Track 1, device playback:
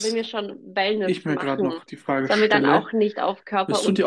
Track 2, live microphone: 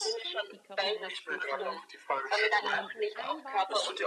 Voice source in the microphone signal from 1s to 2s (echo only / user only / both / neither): both